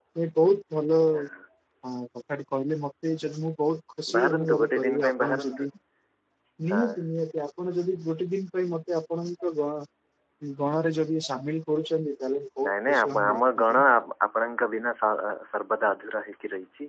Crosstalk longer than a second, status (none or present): present